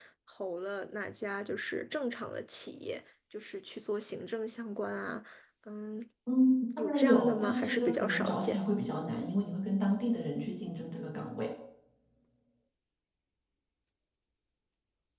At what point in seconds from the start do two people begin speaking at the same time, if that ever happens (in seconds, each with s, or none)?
6.8 s